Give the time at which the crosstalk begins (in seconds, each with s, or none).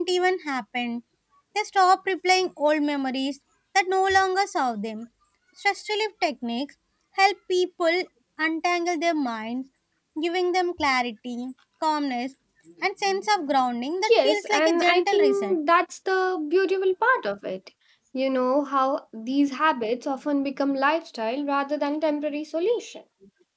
14.0 s